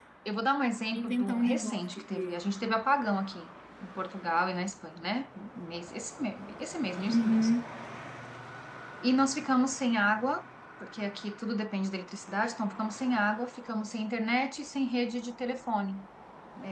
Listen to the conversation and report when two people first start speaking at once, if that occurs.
0.9 s

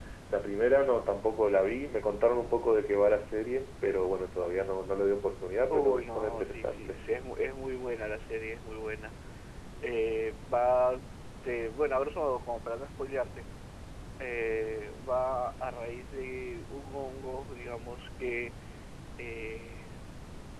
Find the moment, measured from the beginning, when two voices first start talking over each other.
5.7 s

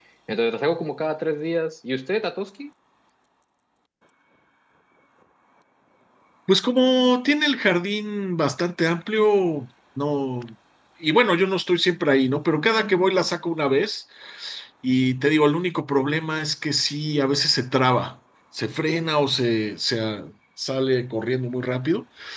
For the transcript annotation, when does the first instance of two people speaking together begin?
none

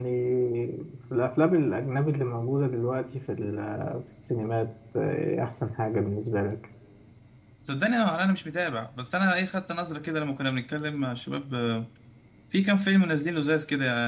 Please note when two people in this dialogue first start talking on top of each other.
none

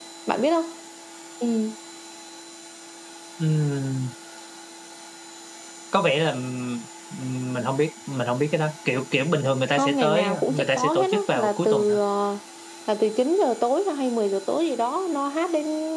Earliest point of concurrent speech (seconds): 9.8 s

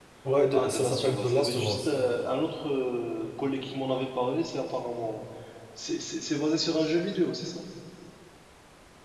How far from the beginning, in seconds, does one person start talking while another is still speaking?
0.5 s

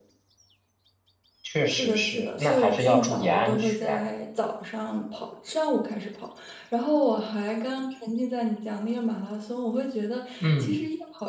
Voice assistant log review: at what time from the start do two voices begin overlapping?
1.7 s

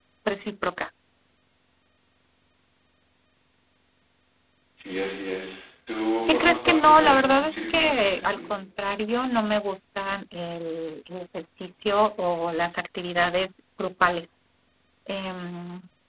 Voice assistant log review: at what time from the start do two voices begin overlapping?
6.3 s

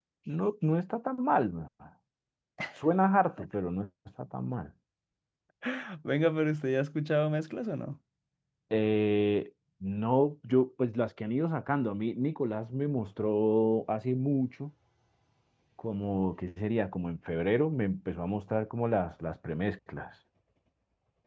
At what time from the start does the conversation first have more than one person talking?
none

